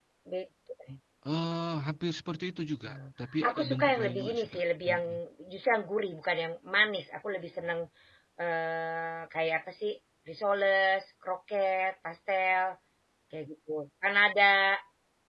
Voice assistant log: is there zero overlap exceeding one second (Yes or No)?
No